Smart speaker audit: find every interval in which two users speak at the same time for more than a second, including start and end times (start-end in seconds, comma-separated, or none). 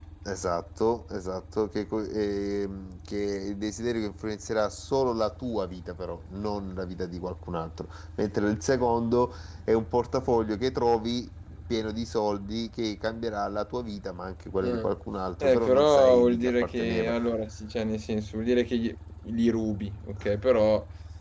15.4-17.1